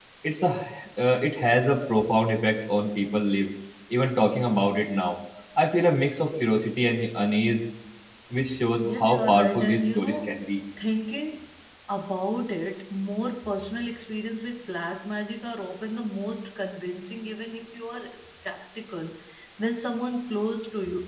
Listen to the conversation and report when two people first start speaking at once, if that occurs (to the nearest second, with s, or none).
9 s